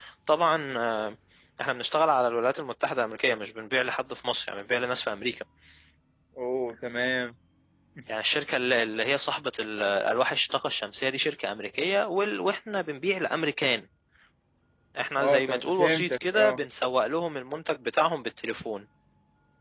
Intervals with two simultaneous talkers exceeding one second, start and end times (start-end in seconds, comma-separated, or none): 15.2-16.6